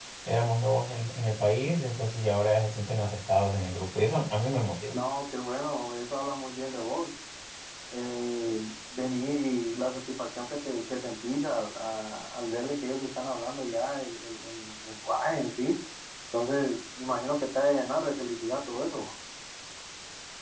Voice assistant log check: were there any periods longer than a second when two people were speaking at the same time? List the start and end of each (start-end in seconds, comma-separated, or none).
none